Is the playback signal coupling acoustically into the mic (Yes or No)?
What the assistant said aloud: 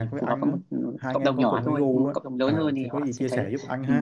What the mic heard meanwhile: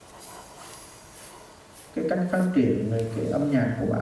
No